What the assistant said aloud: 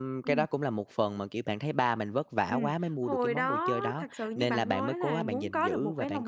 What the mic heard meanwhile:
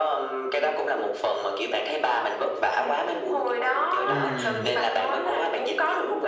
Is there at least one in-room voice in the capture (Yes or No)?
Yes